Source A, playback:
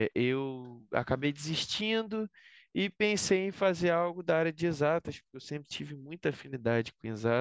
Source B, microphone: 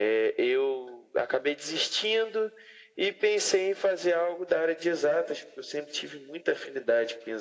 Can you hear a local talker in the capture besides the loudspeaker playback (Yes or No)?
No